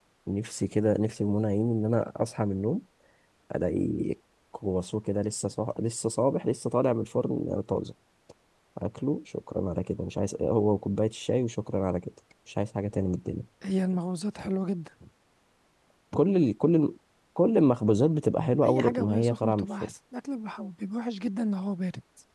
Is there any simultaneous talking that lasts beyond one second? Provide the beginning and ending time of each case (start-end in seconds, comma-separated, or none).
18.6-19.9